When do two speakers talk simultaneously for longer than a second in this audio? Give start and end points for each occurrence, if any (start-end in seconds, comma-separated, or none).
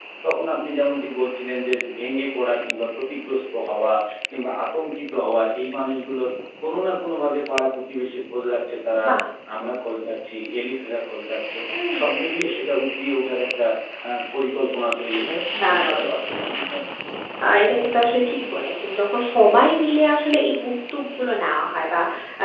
none